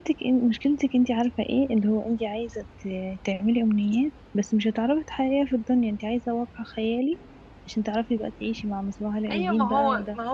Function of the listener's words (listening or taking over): taking over